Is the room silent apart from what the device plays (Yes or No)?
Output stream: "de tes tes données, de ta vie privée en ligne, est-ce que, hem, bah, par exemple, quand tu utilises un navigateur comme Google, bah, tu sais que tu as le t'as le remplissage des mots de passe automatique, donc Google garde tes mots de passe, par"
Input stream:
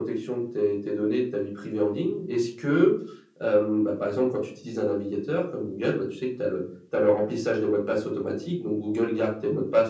Yes